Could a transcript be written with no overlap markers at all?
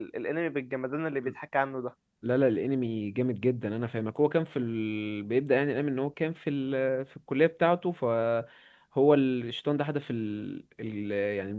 Yes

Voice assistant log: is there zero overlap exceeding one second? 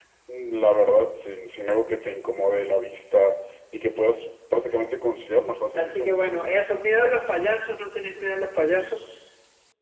Yes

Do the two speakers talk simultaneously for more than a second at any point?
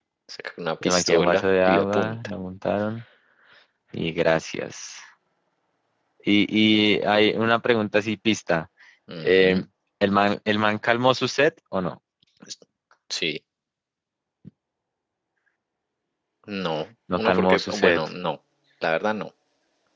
Yes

